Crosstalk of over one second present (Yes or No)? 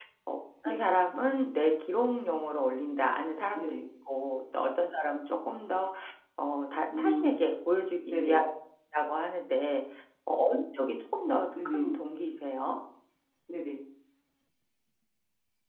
No